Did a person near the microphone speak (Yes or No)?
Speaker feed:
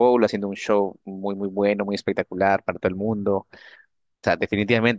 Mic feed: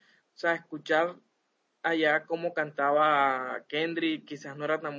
Yes